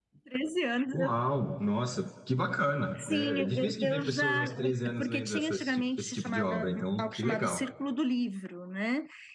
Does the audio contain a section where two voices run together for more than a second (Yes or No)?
Yes